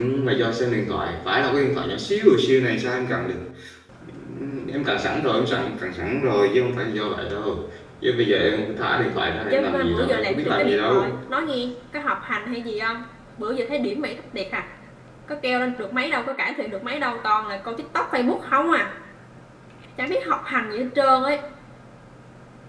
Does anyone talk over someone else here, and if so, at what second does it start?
9.4 s

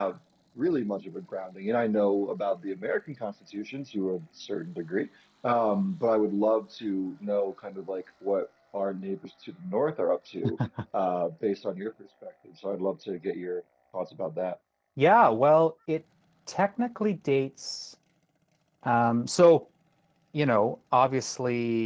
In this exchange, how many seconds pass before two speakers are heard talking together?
none

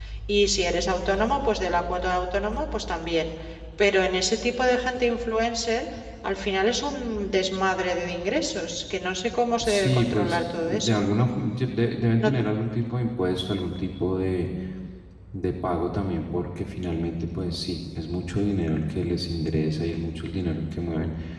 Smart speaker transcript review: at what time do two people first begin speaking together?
9.6 s

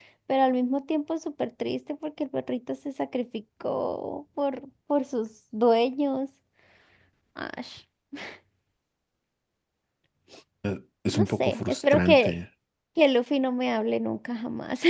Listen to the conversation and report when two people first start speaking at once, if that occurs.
11.1 s

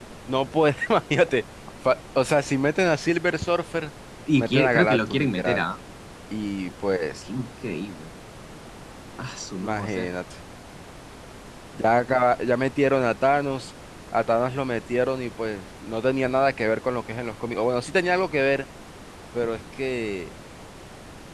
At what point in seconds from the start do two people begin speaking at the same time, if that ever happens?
4.4 s

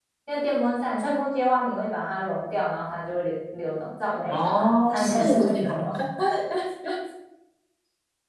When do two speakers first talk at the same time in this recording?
4.3 s

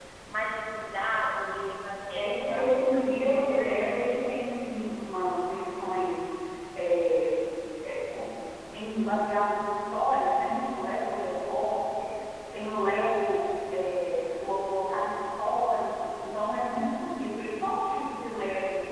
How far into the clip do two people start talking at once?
2.1 s

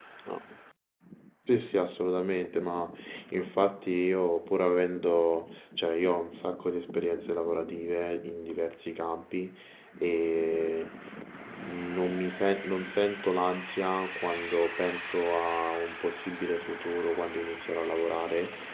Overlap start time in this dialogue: none

